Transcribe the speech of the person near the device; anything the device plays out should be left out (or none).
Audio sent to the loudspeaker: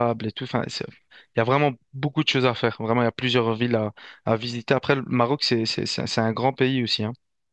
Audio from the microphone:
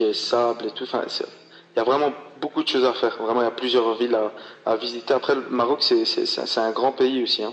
none